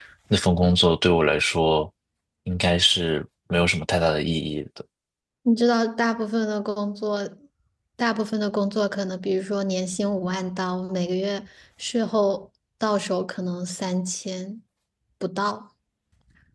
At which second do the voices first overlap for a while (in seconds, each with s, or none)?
none